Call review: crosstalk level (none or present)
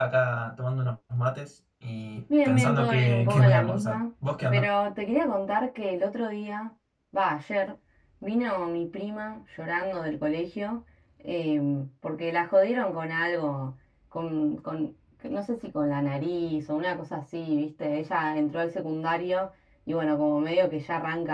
present